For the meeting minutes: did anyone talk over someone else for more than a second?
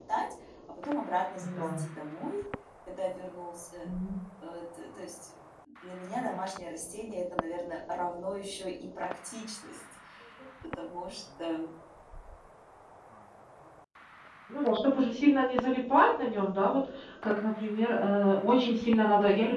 No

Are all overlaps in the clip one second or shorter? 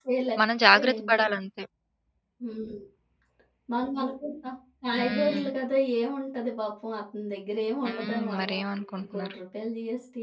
No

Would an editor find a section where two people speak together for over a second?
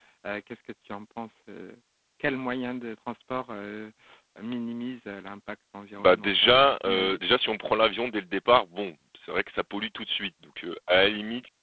Yes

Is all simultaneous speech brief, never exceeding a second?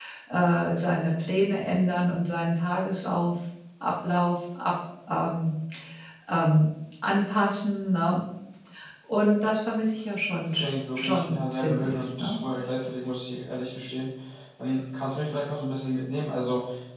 No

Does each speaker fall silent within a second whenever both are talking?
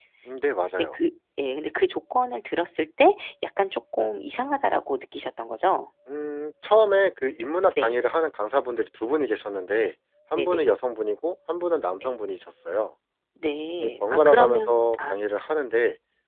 No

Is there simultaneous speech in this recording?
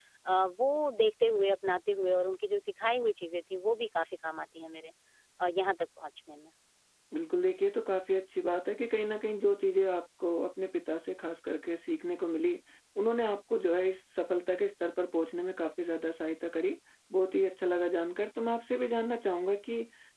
No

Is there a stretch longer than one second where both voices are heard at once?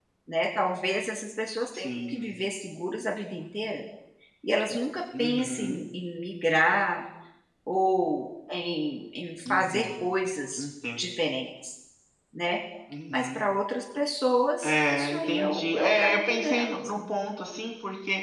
Yes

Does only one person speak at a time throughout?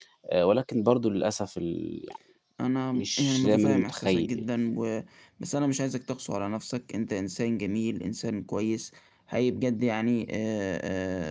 No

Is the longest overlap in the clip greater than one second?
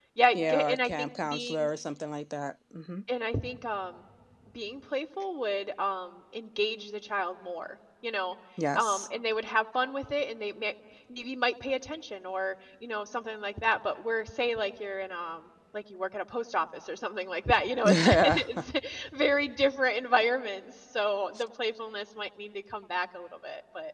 Yes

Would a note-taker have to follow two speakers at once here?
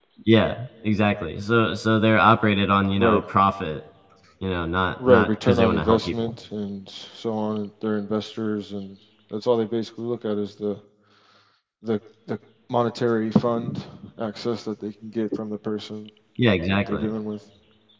Yes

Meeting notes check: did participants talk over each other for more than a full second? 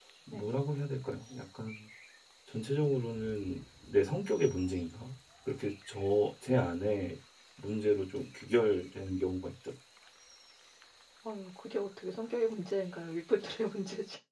No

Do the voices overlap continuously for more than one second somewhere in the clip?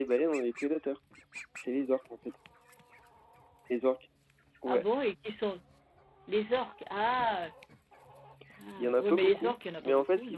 Yes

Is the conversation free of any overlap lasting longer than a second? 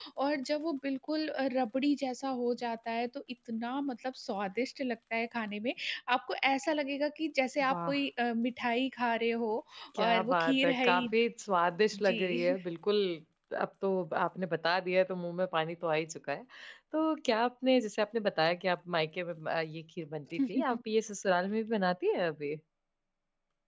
No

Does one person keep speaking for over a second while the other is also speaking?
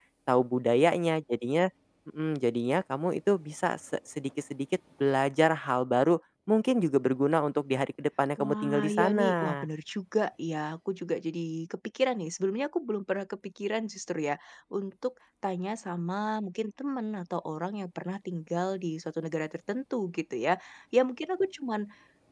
Yes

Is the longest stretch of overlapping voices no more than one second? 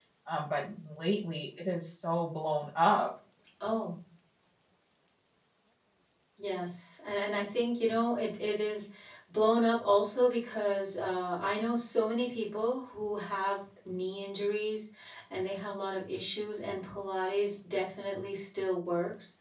Yes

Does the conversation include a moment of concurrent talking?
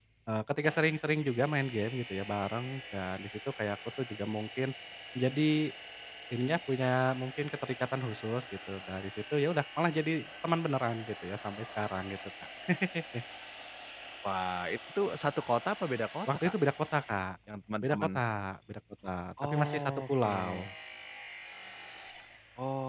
Yes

